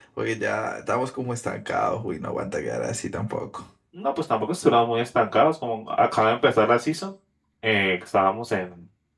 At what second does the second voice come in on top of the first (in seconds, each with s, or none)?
none